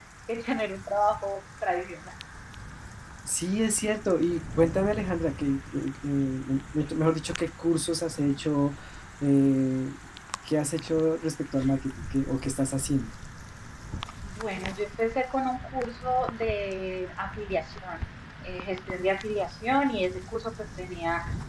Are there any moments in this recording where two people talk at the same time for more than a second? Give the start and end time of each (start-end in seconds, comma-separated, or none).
none